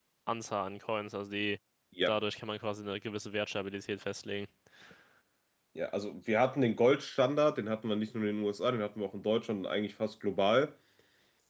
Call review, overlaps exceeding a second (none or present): none